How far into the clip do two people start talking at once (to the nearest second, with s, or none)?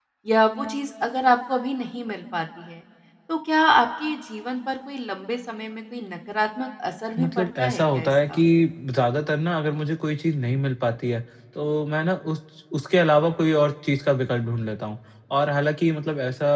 7 s